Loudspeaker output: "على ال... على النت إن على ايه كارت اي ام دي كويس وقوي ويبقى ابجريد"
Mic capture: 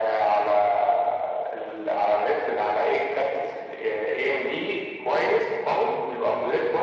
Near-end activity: none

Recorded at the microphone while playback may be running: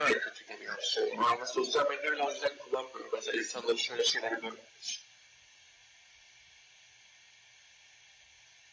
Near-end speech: none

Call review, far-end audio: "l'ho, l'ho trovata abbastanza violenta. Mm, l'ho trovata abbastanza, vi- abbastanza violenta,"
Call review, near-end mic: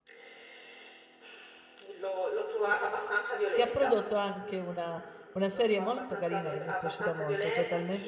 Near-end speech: present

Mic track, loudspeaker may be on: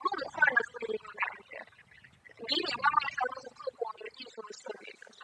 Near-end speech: none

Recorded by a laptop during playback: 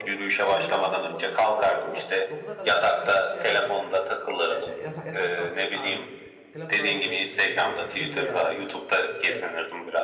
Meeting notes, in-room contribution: present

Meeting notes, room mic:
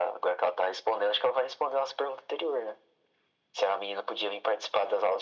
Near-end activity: none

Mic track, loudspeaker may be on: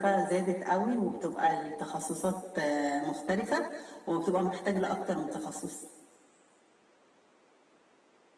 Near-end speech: none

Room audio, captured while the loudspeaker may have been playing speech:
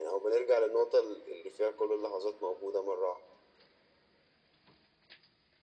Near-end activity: none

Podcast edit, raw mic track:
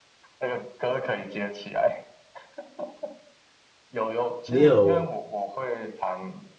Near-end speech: present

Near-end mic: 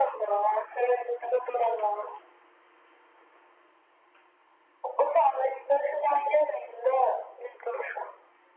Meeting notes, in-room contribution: none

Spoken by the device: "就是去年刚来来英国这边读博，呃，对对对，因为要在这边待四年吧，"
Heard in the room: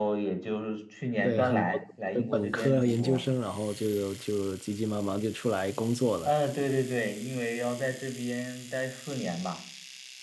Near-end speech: present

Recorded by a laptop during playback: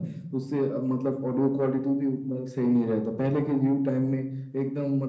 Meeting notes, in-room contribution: none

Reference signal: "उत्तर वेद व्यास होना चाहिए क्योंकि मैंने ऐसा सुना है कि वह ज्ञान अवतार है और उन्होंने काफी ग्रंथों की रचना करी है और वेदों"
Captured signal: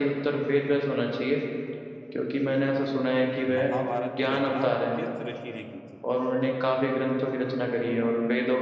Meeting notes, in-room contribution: present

